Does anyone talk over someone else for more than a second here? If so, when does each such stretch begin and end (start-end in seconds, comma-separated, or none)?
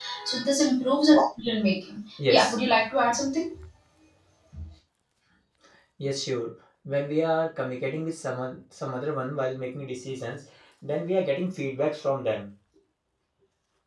none